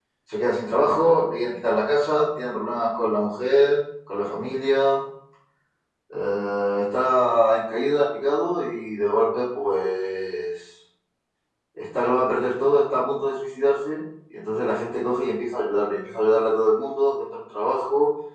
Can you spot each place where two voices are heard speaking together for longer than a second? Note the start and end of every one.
none

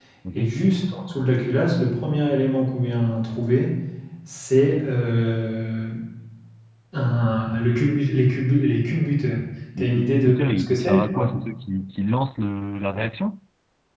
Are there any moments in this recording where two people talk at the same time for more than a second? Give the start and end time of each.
9.8-11.3

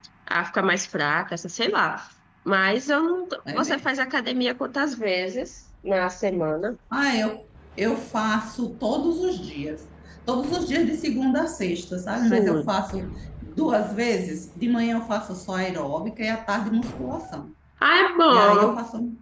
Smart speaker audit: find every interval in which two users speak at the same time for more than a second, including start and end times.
none

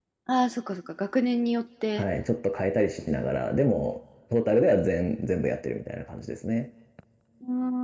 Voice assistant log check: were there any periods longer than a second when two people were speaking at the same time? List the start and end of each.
none

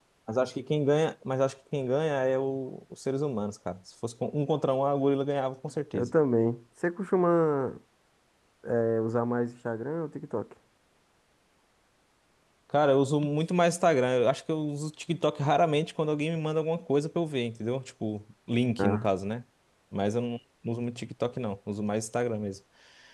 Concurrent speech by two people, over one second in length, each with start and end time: none

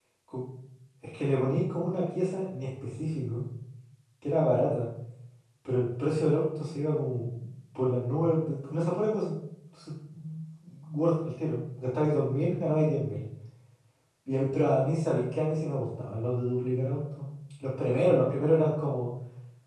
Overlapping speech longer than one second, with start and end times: none

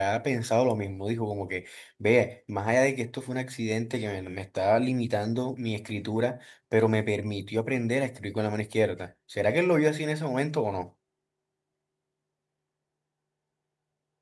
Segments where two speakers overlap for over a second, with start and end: none

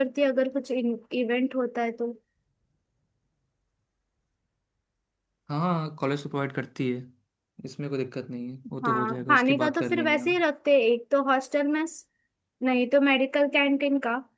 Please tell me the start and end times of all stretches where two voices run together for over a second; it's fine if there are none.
8.8-10.3

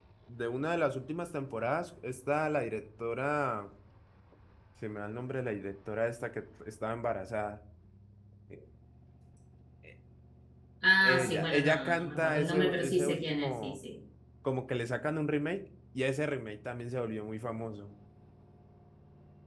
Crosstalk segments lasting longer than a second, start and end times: 11.0-13.8

